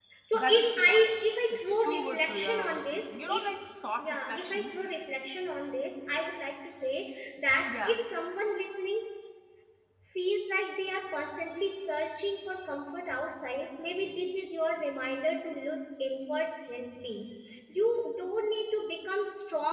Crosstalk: present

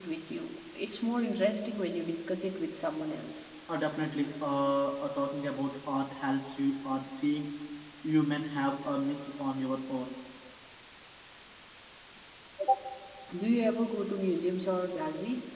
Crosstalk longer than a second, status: none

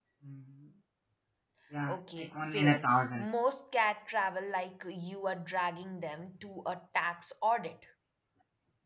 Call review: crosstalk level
present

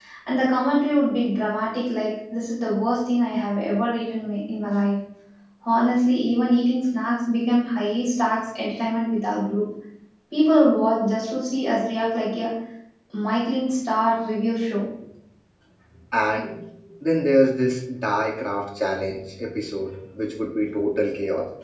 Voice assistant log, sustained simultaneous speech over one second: none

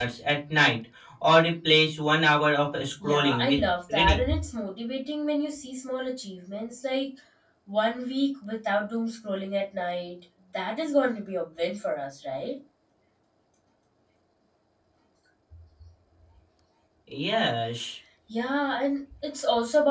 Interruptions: present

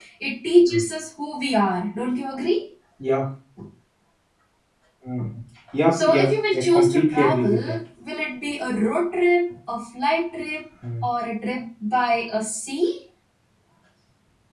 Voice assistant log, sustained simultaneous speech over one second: present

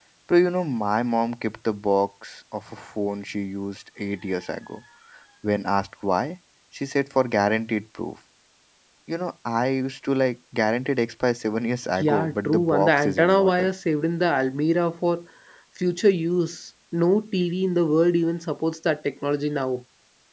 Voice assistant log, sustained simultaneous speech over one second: present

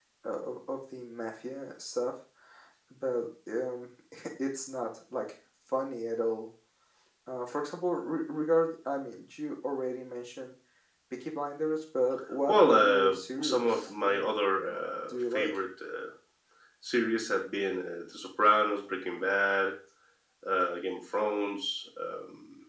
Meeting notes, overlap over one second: present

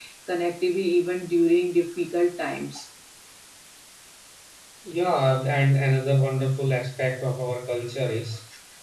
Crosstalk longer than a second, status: none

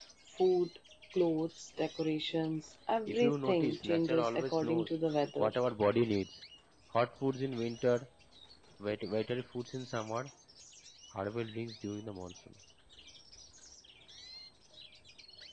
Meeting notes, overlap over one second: present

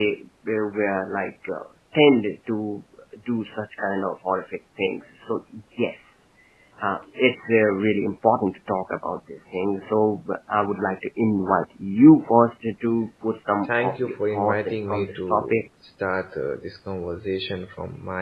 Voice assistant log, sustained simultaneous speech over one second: present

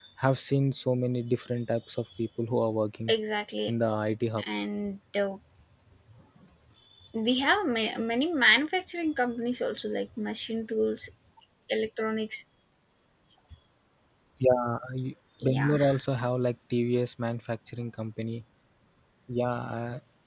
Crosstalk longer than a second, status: none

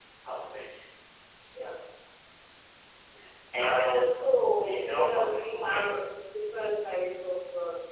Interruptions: present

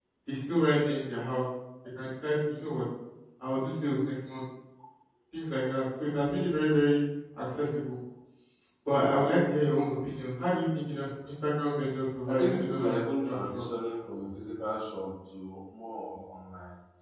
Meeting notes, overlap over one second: present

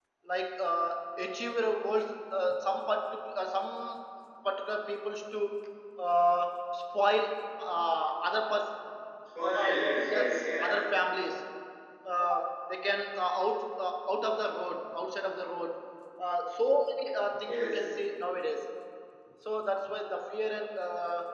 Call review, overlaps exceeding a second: present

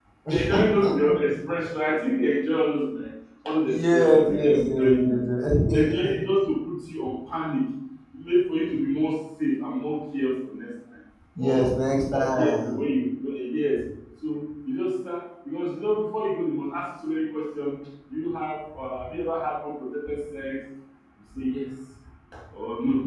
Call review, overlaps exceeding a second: present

